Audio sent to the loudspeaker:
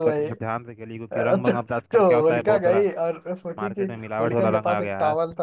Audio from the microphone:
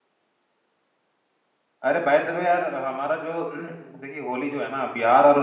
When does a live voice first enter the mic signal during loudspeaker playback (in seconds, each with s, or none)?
1.9 s